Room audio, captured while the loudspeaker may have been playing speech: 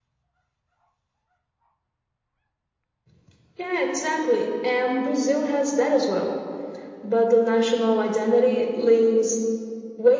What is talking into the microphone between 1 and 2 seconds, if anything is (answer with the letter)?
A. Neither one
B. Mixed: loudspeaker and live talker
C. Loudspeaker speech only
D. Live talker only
A